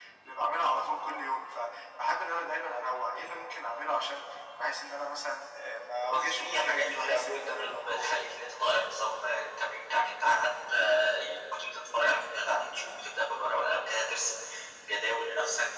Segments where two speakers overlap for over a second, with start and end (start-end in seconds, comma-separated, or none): 6.1-8.1